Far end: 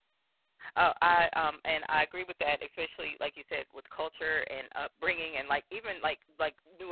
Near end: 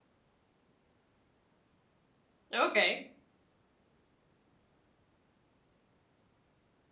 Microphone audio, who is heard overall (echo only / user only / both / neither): user only